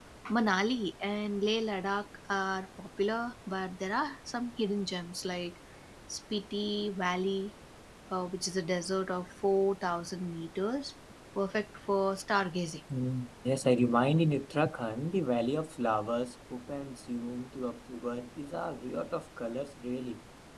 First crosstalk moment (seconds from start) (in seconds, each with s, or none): none